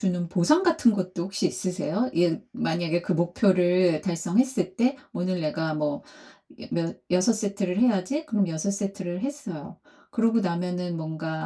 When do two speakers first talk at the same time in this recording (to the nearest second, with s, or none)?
none